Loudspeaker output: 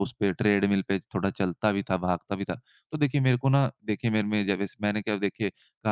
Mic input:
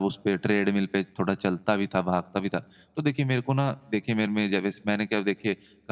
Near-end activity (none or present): none